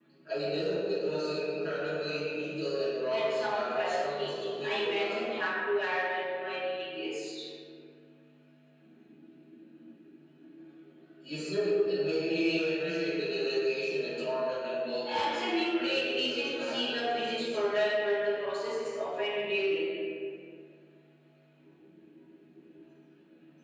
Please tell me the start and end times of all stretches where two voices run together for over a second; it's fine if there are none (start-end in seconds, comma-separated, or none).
3.1-5.2, 15.1-17.6